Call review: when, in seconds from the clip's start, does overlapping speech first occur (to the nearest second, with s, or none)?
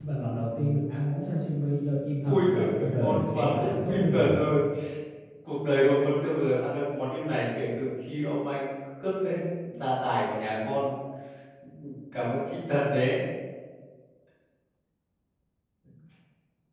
2 s